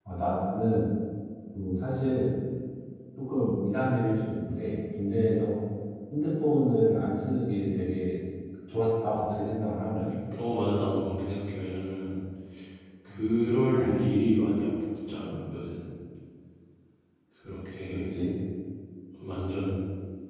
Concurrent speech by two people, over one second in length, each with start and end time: none

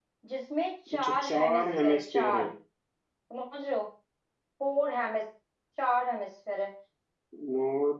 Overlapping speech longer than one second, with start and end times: 0.9-2.5

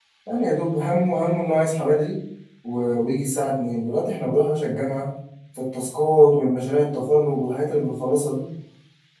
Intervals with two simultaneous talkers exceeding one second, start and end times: none

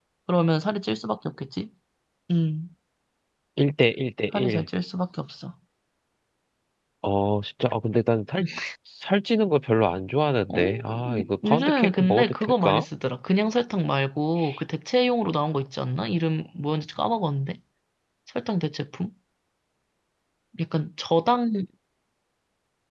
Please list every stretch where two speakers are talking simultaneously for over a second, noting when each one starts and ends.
10.5-12.8

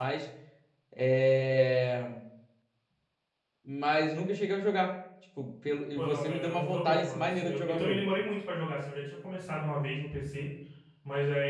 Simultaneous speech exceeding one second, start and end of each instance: 6.0-8.1

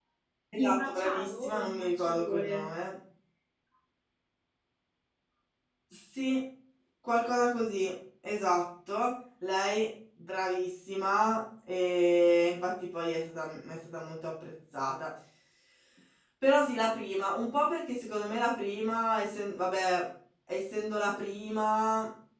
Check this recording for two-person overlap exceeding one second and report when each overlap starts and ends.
0.6-2.6

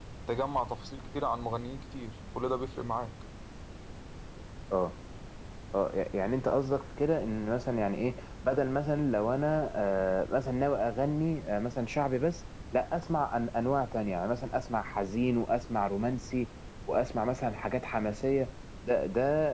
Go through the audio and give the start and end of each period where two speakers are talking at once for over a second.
none

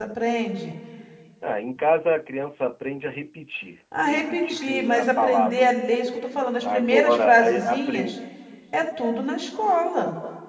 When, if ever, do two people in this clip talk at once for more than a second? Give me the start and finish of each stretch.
4.0-5.6, 6.7-8.2

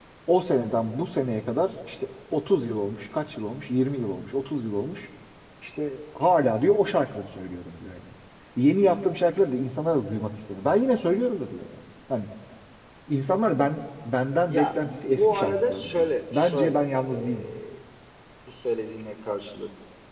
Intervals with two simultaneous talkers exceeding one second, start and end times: 14.5-17.4

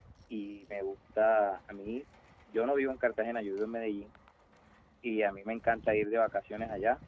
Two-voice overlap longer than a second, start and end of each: none

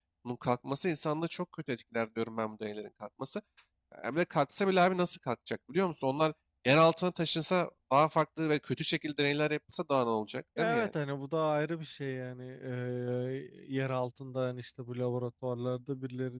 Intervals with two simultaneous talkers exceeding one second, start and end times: none

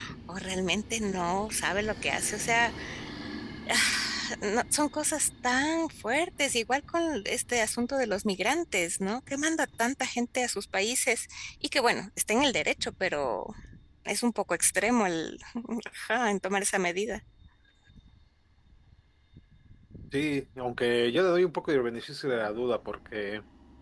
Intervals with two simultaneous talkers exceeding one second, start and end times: none

